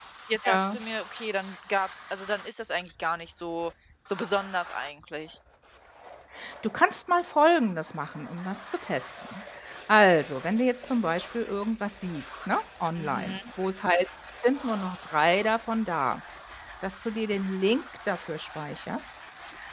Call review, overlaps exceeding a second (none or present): none